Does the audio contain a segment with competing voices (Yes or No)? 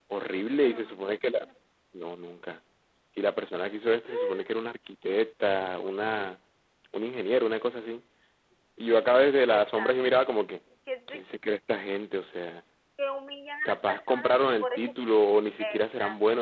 Yes